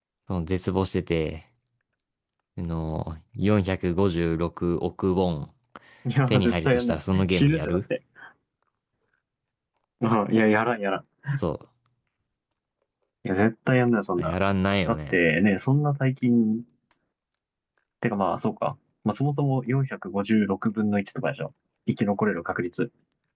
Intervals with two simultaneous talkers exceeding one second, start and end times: 6.3-7.8

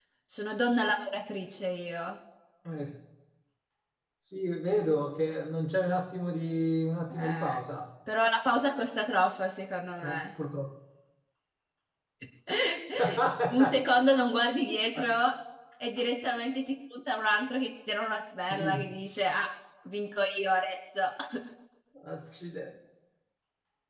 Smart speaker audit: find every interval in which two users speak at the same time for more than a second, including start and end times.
none

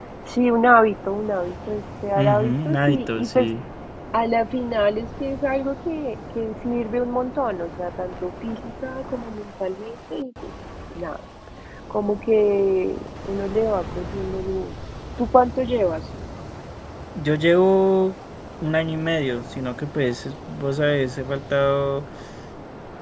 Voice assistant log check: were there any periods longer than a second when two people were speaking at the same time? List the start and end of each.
2.1-3.5

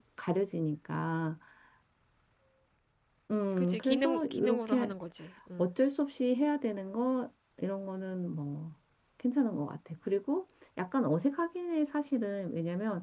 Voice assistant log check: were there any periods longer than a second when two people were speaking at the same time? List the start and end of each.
3.6-4.9

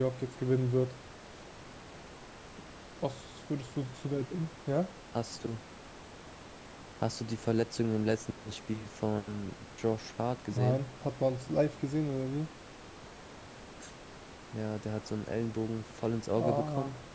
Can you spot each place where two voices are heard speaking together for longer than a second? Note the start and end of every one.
none

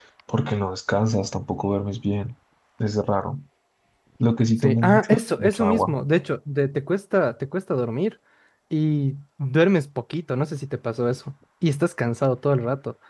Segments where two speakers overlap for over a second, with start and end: 4.6-6.0

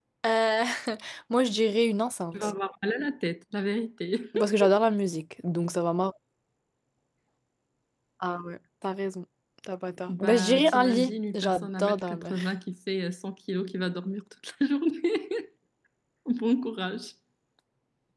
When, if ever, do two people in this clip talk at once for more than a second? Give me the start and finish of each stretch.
10.1-12.4

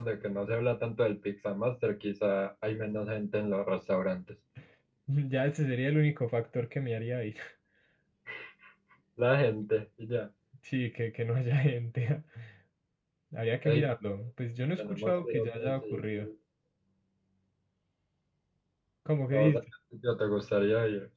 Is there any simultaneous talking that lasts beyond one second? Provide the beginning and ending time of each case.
14.8-16.3

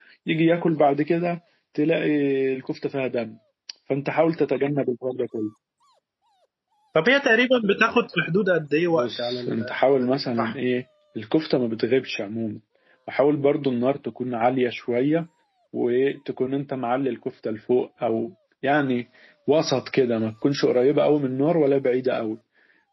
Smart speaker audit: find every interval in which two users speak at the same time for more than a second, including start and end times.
8.9-10.5

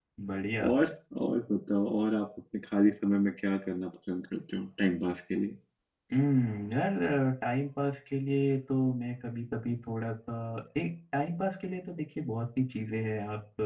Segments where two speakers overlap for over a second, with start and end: none

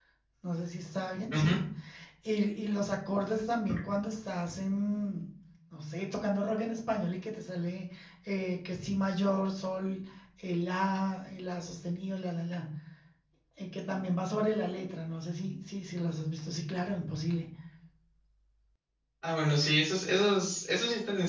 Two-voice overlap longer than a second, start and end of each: none

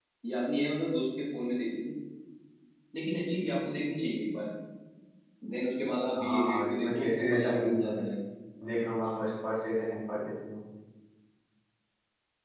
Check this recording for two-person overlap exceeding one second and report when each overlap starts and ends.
6.2-7.9

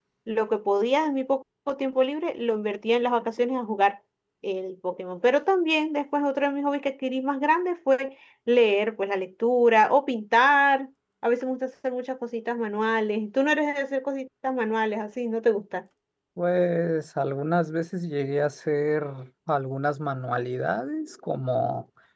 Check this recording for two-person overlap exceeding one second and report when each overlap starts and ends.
none

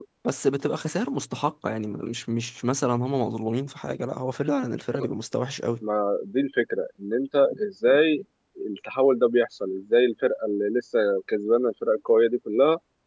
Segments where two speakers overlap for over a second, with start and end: none

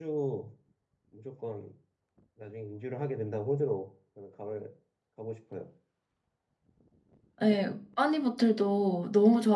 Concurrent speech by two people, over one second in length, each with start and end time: none

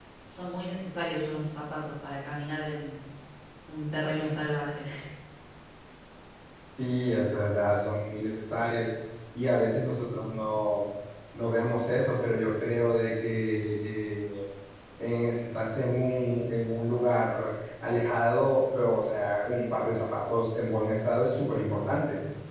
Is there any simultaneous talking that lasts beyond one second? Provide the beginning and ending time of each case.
none

